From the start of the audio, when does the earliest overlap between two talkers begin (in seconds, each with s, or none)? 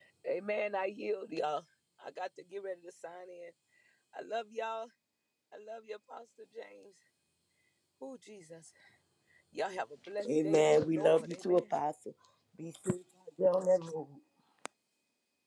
10.2 s